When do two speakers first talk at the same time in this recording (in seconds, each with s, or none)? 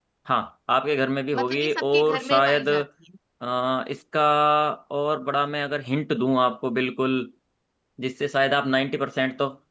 1.3 s